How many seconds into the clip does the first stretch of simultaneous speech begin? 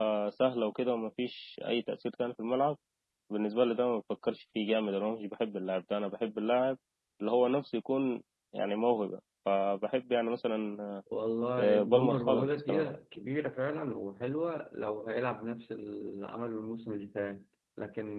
11.6 s

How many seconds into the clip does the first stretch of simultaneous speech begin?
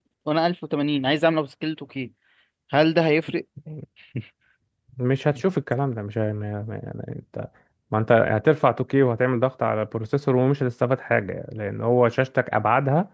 none

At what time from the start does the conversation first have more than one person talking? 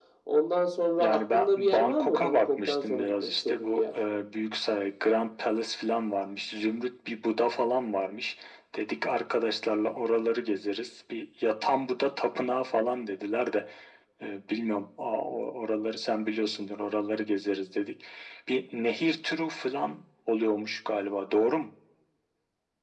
1.0 s

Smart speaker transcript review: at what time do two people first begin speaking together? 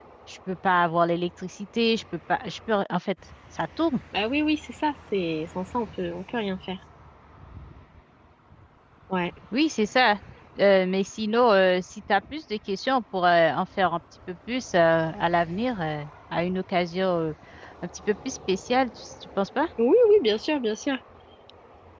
none

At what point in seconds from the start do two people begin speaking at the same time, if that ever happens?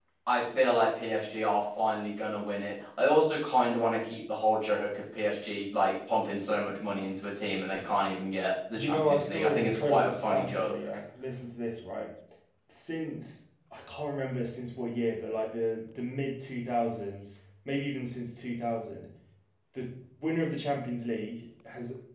8.7 s

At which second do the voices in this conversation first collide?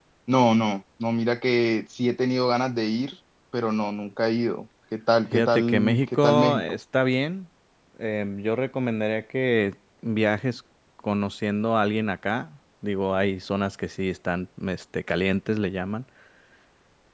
5.3 s

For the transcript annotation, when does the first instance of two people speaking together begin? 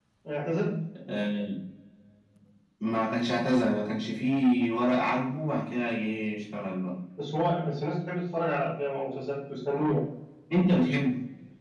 none

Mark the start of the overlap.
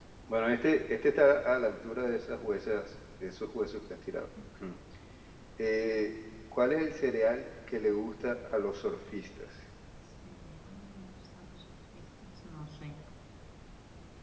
none

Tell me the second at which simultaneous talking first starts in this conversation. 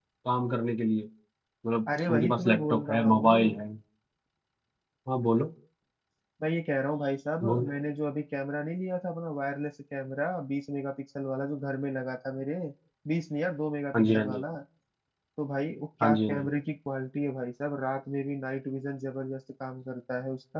2.1 s

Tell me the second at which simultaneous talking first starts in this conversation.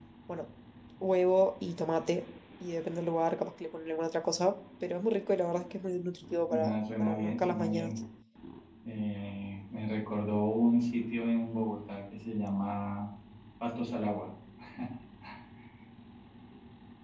6.5 s

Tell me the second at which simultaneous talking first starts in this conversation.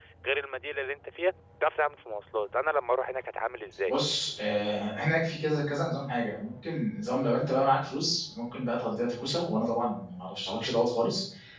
none

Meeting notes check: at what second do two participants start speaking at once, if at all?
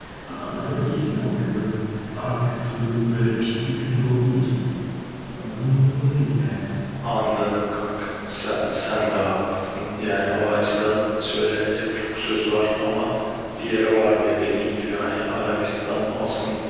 none

